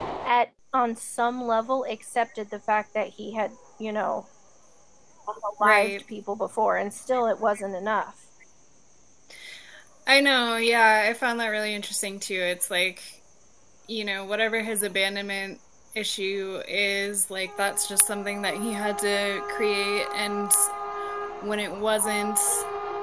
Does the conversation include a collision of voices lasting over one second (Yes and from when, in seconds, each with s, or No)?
No